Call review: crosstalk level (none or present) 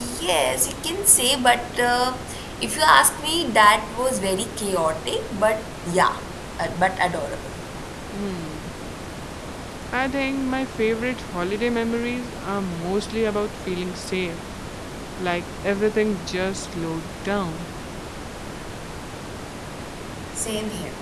none